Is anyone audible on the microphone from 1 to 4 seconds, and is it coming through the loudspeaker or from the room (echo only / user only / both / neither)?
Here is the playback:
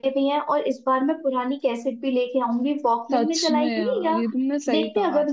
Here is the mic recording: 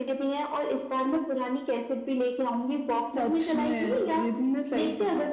echo only